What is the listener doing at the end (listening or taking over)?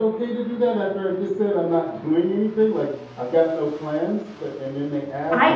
taking over